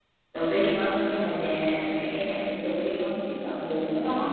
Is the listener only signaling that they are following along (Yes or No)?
No